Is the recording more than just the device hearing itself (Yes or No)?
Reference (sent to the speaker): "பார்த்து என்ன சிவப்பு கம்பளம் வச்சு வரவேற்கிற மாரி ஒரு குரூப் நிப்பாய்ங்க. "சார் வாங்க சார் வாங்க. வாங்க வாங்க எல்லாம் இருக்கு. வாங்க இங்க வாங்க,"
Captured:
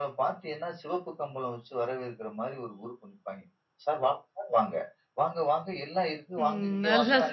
Yes